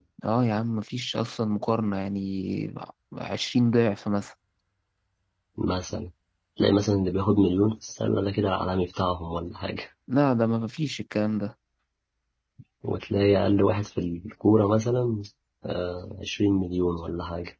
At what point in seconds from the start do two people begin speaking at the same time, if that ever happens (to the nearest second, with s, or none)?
none